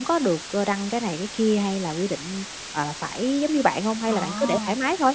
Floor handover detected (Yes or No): Yes